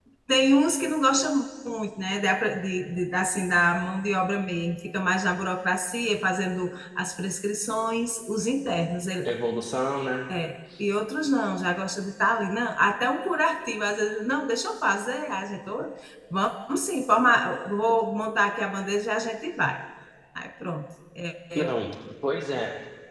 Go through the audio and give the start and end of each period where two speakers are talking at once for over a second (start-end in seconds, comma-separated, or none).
none